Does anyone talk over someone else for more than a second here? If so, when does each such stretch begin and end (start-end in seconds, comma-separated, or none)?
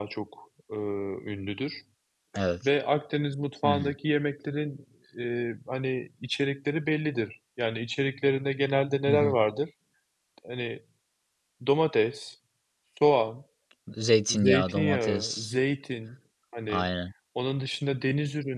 14.3-15.5